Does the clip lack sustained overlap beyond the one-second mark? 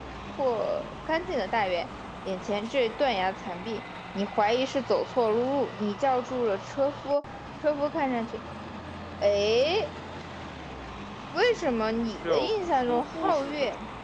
No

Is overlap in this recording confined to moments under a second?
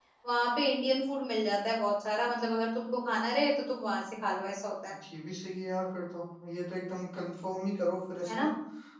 Yes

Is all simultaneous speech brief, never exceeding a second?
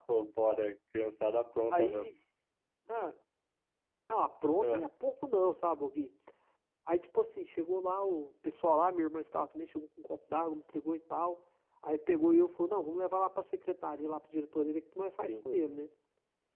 Yes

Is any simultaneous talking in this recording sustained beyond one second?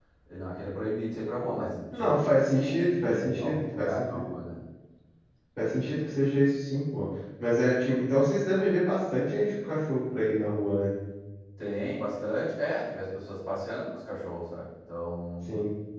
Yes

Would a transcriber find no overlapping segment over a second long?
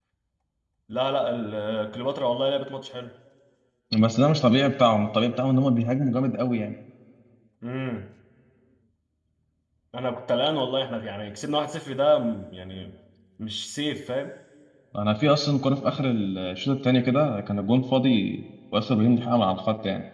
Yes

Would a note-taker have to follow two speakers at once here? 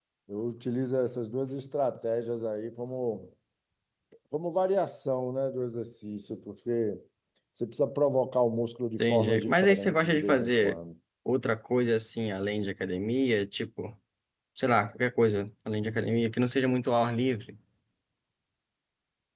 Yes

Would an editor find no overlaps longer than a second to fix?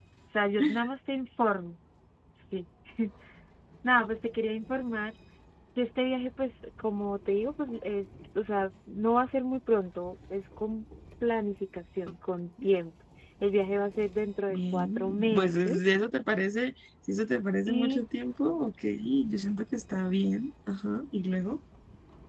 No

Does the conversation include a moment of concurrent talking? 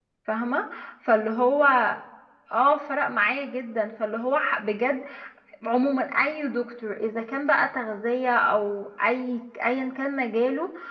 No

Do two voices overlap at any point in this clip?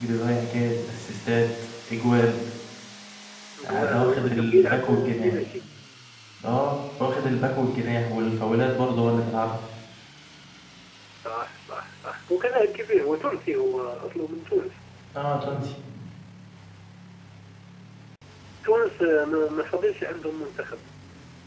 Yes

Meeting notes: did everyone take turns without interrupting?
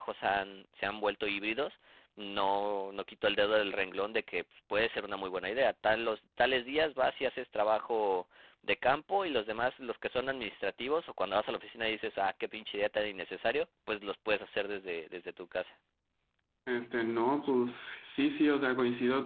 Yes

